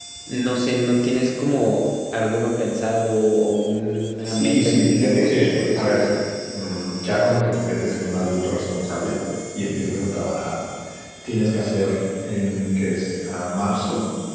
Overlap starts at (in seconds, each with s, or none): 4.3 s